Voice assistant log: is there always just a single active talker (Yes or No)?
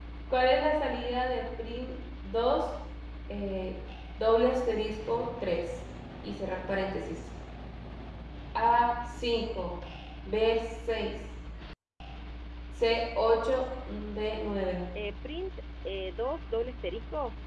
Yes